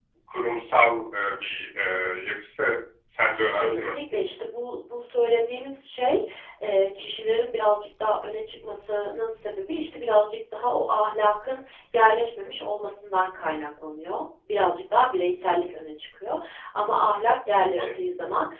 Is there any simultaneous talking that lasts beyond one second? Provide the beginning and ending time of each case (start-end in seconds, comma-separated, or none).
none